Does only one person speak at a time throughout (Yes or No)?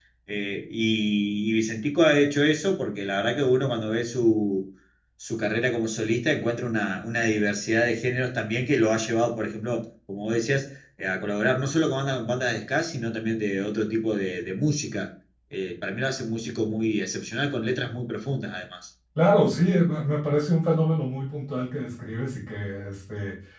Yes